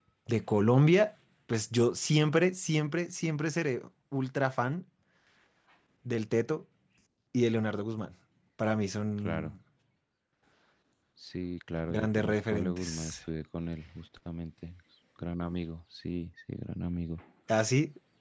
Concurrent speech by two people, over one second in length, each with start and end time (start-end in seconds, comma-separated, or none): 11.9-13.2